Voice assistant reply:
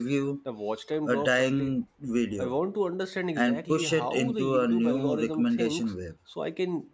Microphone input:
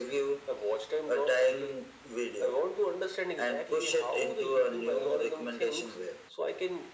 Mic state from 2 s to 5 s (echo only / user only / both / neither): echo only